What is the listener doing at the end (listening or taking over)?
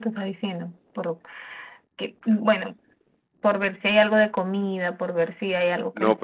taking over